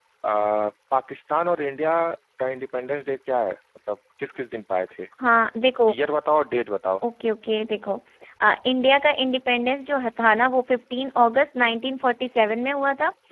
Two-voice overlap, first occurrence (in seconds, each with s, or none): none